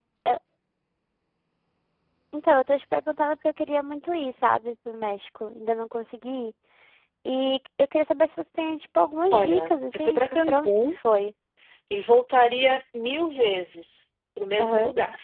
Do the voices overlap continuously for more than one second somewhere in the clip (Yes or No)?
Yes